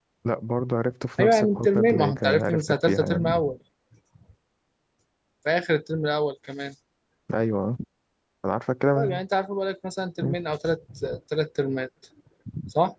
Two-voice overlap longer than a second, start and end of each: 1.2-3.4

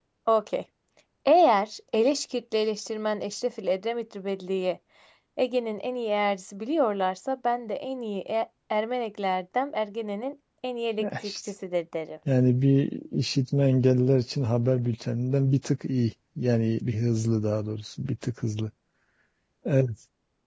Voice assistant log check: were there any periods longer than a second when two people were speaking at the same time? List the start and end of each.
none

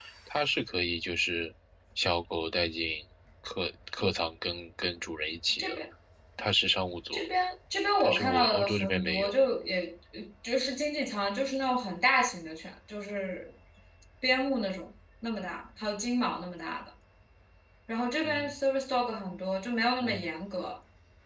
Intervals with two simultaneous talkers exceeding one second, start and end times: 8.0-9.3

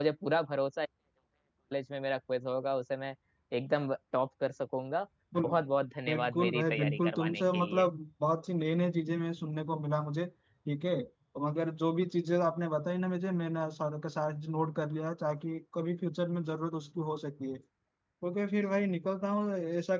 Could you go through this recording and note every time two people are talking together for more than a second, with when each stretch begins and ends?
6.1-7.9

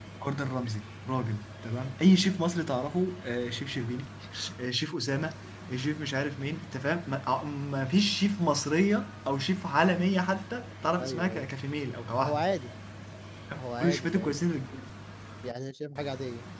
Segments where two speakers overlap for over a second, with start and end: none

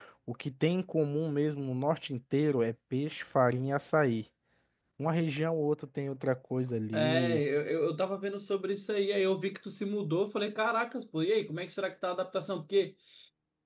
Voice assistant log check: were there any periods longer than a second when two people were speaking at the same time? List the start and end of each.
none

